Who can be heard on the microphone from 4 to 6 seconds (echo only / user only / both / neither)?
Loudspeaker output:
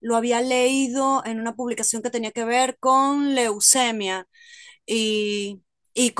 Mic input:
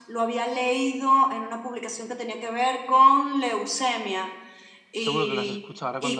both